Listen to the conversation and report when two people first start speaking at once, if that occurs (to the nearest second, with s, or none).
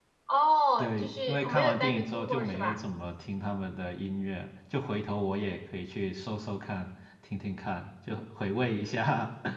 1 s